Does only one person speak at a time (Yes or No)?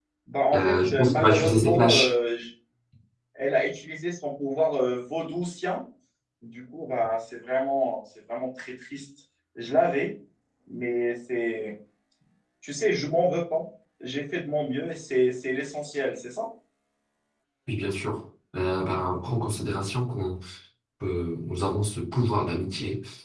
No